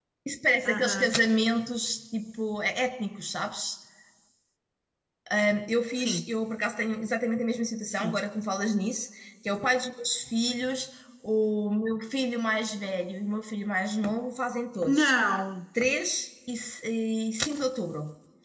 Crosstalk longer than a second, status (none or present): none